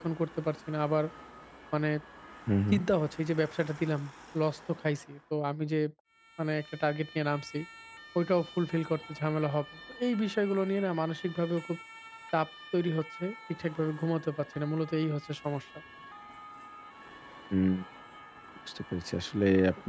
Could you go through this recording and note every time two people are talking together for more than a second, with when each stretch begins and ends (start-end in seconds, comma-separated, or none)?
none